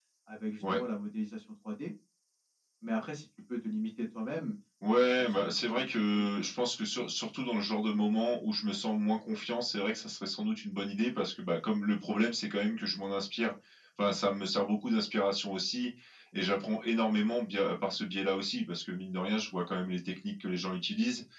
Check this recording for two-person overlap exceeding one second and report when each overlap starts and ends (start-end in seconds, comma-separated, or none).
4.9-6.5